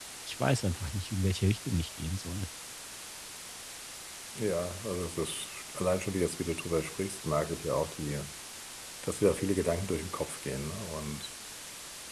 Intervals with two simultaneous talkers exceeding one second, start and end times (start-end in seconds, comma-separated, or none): none